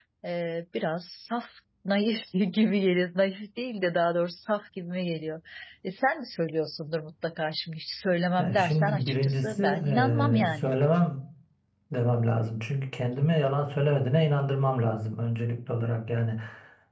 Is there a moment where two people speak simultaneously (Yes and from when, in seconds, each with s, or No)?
Yes, from 8.4 s